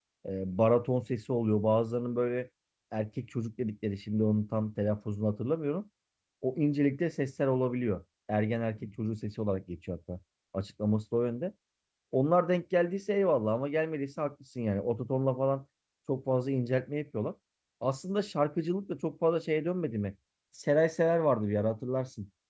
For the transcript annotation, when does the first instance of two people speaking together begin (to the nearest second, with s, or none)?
none